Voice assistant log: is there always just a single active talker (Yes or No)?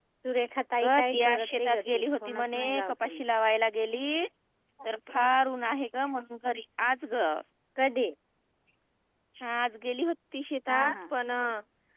No